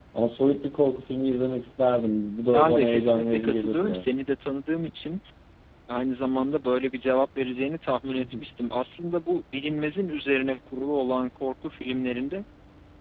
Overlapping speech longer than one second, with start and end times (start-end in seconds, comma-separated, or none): 2.5-4.0